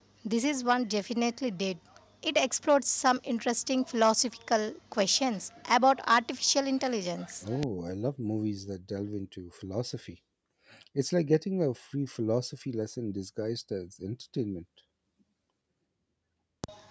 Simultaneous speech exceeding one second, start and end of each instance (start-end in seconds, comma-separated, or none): none